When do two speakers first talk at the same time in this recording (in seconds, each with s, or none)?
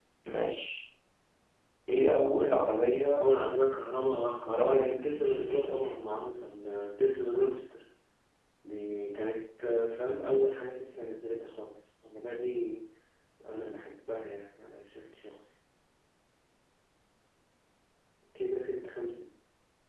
4.4 s